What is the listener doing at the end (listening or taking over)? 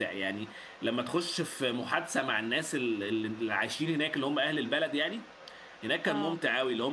listening